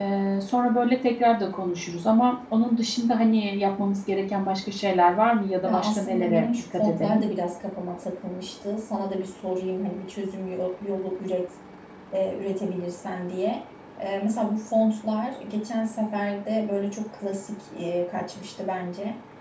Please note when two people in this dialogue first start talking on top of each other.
5.6 s

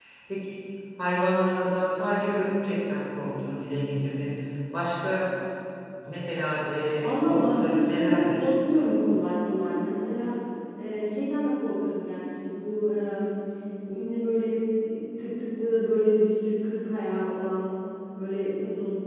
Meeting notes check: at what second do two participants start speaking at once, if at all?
7.0 s

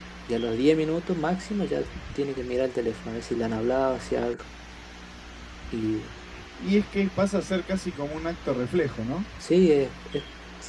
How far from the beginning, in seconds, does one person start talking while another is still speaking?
none

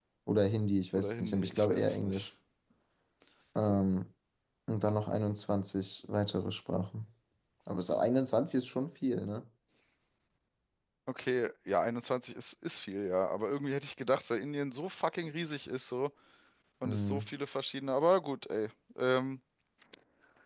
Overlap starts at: 1.0 s

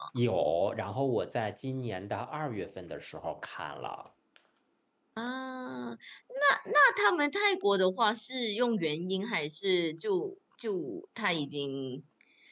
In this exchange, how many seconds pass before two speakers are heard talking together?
none

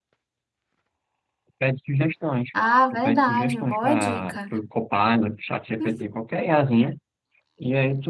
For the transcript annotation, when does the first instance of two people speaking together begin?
2.9 s

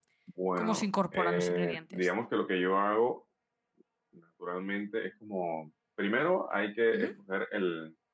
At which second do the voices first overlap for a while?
0.6 s

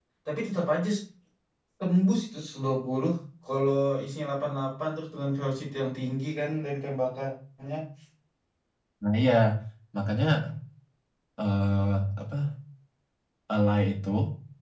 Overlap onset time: none

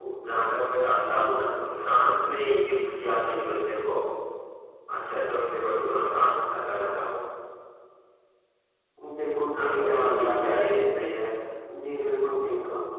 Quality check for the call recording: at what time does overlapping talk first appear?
9.6 s

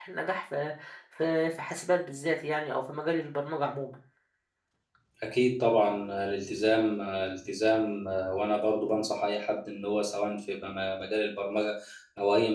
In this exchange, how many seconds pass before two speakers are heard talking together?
none

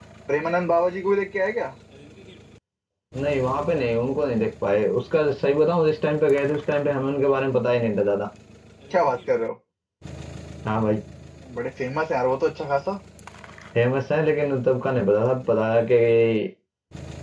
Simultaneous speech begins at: none

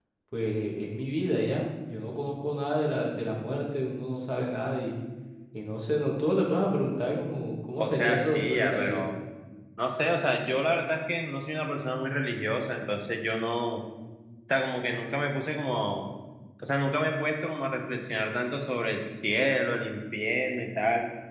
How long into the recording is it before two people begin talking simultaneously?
7.8 s

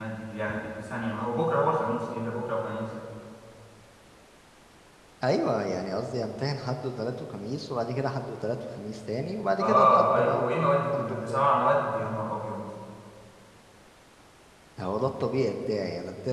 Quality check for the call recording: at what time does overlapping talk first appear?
9.6 s

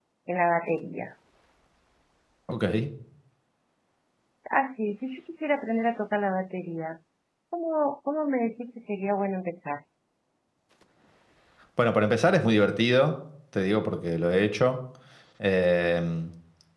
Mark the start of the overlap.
none

